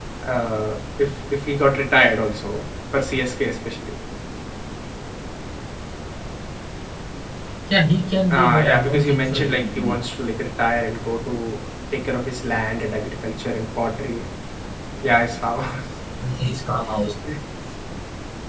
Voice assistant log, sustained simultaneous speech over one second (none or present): present